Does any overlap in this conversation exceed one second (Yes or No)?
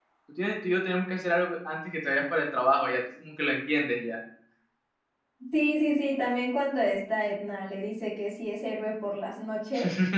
No